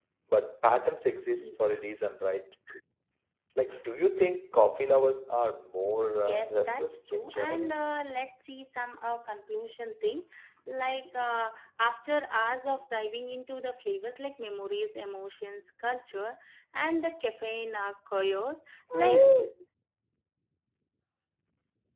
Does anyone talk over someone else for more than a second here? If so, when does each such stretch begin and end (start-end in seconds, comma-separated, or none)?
6.3-7.8